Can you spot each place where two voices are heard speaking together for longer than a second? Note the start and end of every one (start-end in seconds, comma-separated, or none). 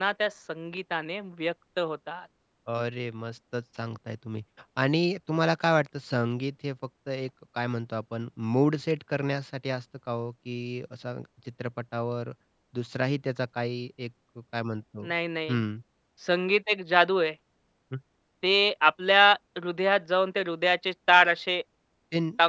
none